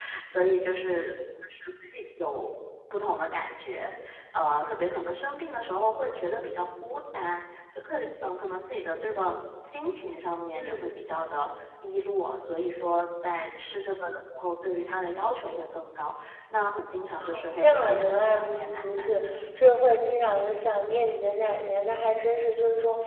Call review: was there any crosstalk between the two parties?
Yes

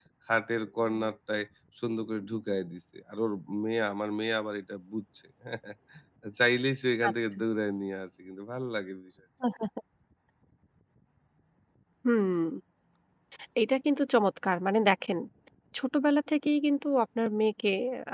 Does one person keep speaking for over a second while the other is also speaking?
No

